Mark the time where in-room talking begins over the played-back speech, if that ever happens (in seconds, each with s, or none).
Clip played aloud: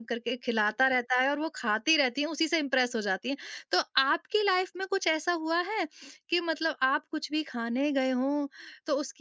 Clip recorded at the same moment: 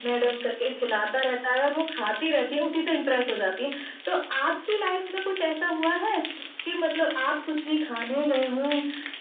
none